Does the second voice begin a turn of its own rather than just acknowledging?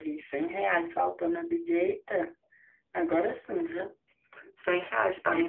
Yes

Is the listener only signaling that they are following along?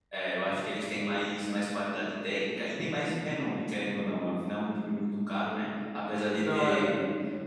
Yes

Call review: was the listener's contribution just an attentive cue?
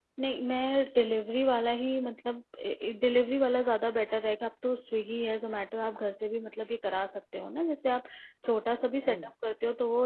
Yes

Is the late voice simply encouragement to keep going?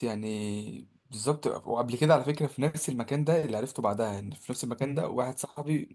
Yes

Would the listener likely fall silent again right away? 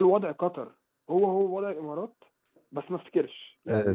No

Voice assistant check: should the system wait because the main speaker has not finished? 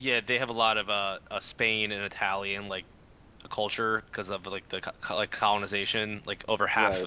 Yes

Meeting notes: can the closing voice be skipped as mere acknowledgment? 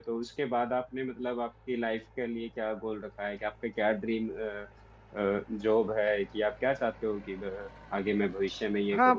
No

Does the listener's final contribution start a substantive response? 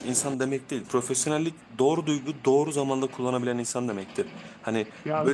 No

